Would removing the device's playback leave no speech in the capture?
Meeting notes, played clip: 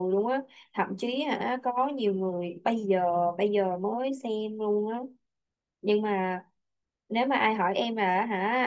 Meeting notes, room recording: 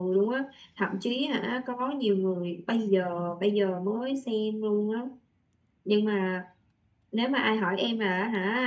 Yes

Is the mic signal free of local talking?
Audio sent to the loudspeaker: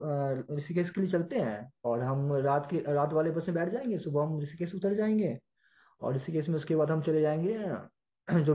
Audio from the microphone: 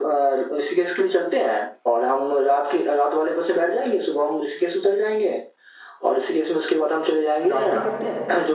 No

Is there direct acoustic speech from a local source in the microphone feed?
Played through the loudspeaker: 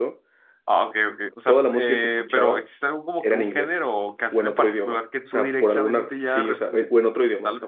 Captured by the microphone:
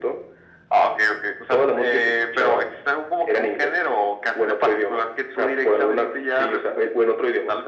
No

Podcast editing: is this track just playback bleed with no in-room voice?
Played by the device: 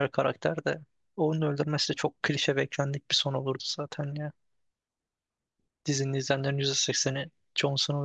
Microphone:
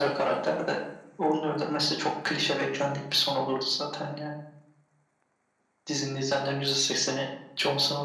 Yes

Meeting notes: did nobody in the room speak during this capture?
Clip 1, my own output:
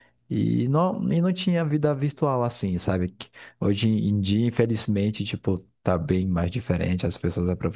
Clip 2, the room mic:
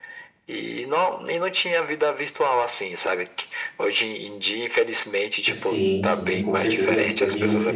No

